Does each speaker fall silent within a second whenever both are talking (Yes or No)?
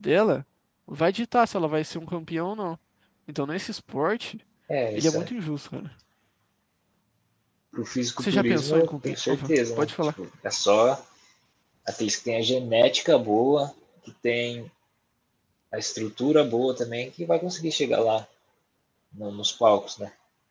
No